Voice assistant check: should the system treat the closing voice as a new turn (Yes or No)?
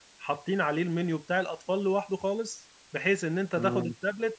No